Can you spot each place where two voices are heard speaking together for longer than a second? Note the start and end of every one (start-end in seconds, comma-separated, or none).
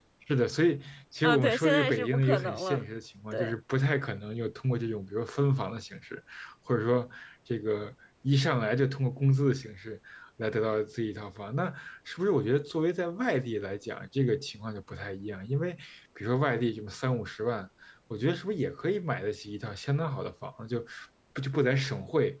1.2-2.8